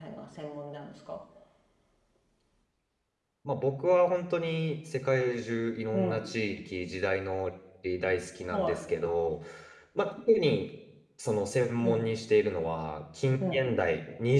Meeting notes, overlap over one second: none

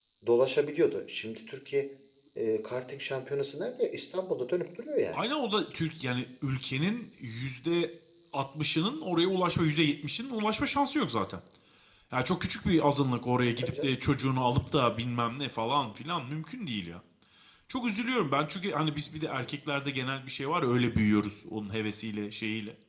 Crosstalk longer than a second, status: none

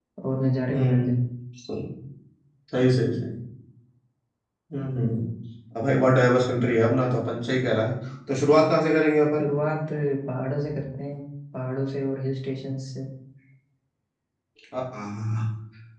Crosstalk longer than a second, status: none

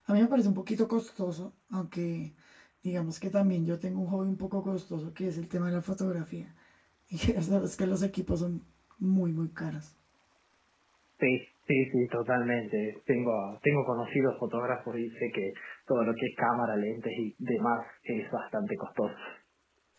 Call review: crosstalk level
none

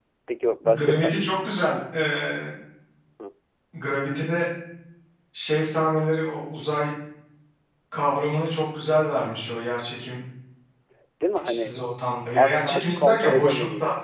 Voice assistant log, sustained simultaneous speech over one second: present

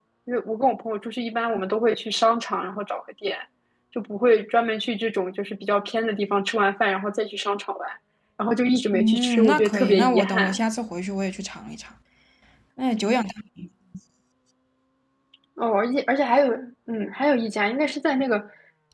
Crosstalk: present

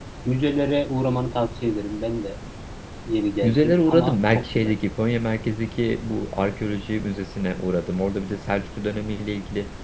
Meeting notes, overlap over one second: present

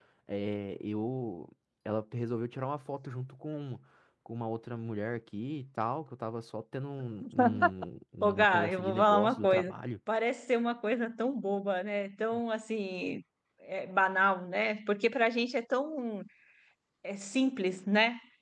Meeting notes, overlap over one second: present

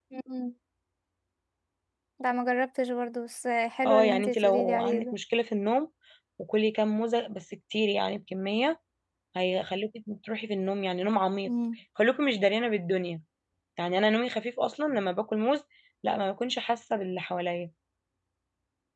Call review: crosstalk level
present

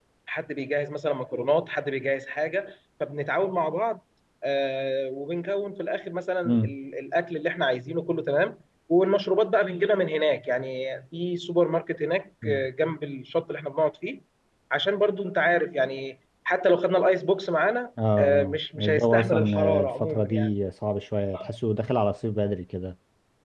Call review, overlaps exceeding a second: present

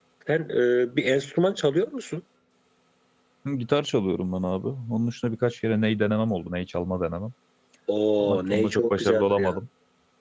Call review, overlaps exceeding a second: present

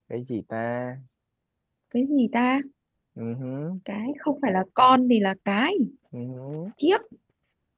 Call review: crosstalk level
none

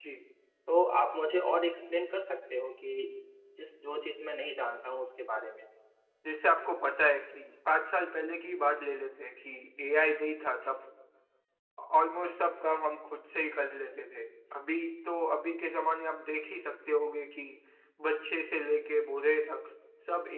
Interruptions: none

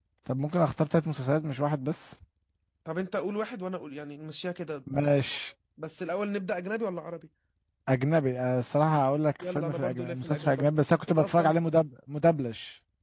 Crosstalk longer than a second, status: present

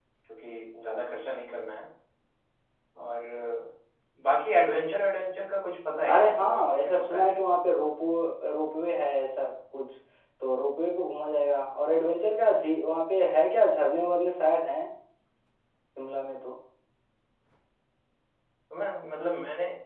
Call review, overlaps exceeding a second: present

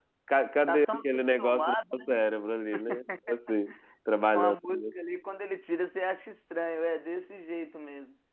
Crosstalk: present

